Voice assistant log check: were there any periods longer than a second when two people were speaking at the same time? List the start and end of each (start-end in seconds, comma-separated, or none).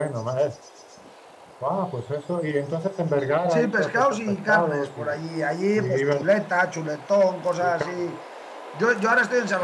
3.5-5.2